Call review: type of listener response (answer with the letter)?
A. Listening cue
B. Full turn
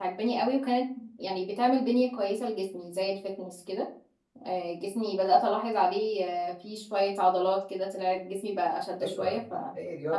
B